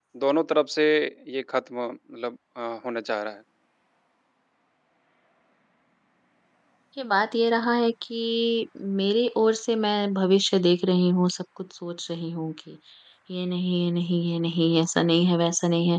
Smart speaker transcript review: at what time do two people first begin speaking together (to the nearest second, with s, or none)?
none